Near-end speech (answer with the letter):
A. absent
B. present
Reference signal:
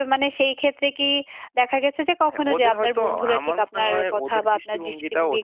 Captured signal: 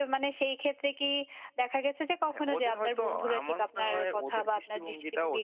A